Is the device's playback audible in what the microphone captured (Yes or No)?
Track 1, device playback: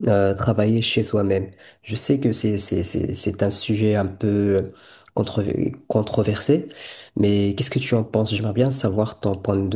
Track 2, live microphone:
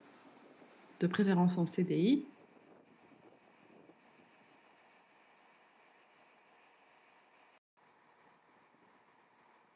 No